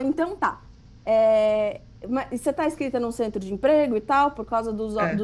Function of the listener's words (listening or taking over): listening